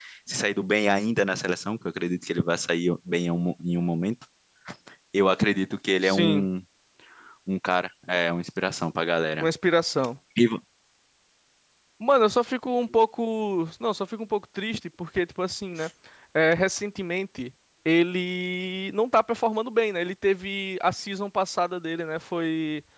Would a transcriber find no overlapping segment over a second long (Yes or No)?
Yes